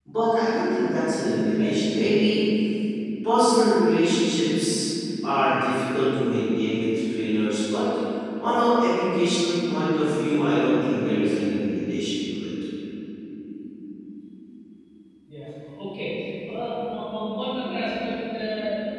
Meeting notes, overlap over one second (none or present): none